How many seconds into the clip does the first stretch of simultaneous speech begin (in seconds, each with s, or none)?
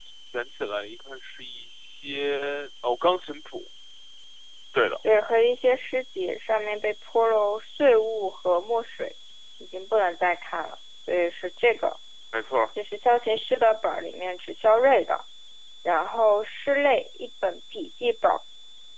none